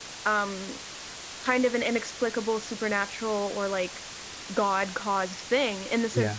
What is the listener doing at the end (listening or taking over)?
listening